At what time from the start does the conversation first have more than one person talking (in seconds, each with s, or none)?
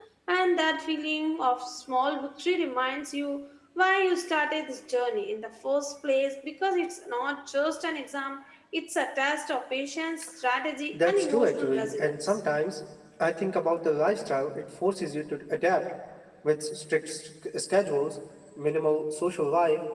10.9 s